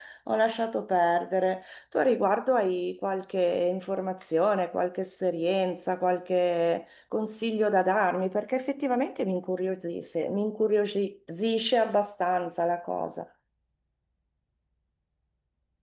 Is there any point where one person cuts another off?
No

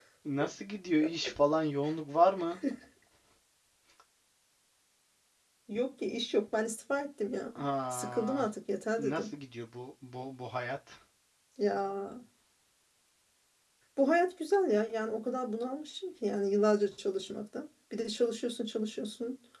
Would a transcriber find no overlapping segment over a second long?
Yes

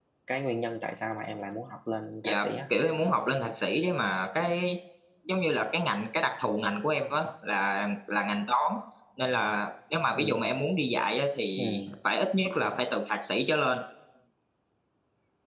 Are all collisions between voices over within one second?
Yes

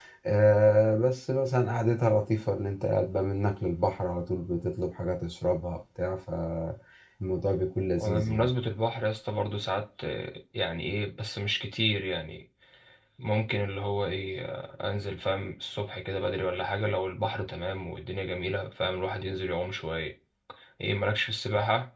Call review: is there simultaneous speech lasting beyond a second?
No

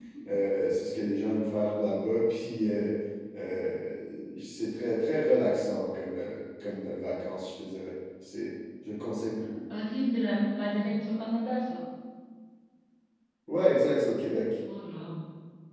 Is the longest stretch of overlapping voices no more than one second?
Yes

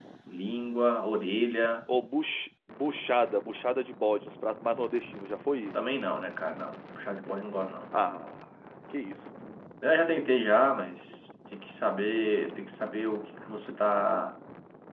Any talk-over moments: No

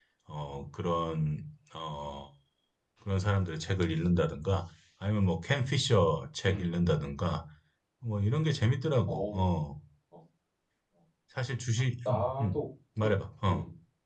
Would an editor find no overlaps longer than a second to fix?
Yes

